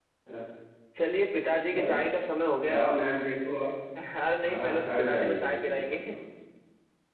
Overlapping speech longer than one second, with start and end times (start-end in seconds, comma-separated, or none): 4.4-6.0